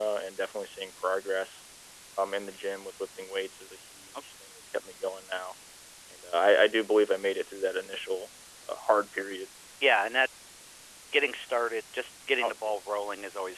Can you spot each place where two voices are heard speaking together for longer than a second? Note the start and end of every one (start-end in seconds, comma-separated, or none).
none